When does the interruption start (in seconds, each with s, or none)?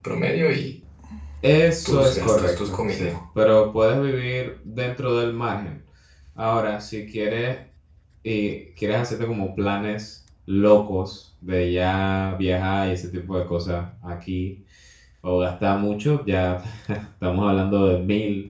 1.9 s